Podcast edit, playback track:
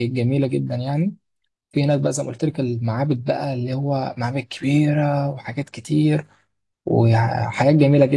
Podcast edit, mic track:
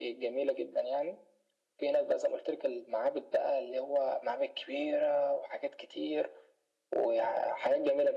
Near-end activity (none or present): none